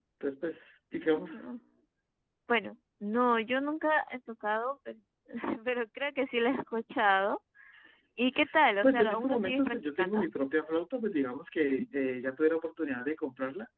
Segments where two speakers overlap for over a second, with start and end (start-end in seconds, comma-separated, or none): 8.8-10.2